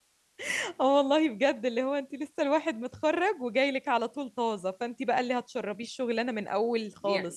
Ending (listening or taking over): taking over